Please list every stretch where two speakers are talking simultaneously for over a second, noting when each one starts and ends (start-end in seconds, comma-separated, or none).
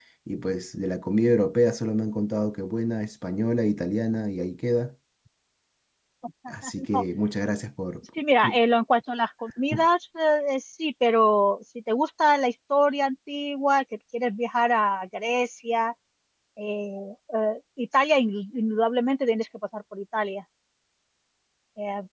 none